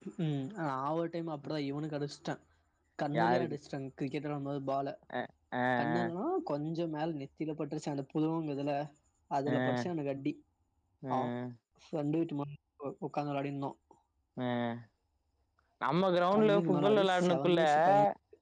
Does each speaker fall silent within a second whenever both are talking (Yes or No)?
No